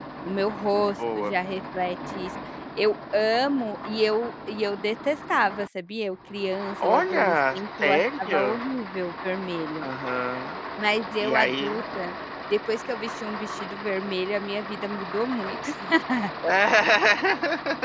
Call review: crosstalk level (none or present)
present